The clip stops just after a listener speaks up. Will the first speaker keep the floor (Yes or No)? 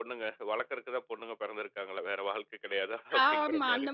No